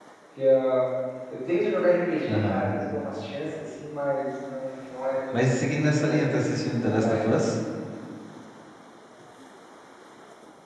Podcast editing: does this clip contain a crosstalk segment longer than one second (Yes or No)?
Yes